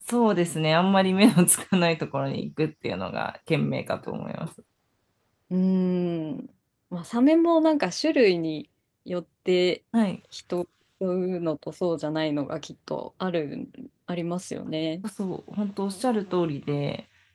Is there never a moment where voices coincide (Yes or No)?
Yes